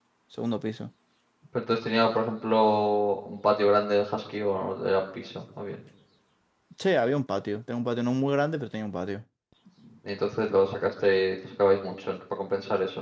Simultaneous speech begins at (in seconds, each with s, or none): none